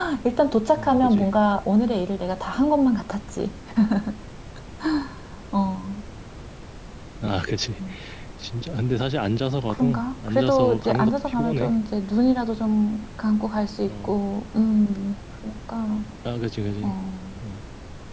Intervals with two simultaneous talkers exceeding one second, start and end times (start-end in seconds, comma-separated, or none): 9.7-11.7